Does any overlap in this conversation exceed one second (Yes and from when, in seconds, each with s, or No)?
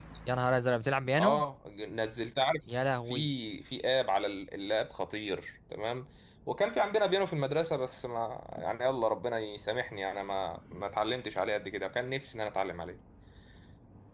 No